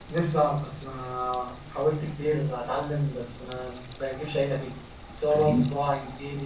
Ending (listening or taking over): listening